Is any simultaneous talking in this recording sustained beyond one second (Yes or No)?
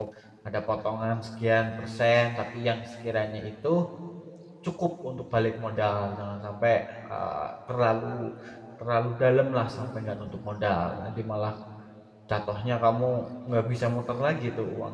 No